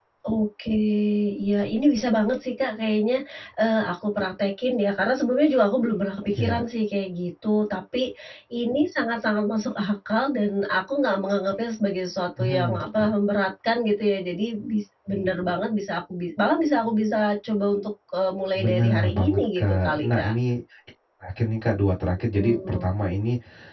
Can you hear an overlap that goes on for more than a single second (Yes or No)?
Yes